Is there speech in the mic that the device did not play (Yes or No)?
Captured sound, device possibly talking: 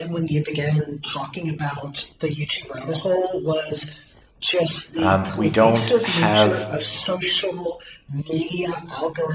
Yes